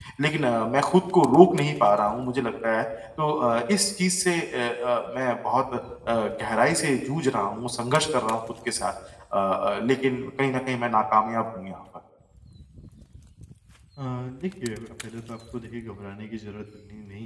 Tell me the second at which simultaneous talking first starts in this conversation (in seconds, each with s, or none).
none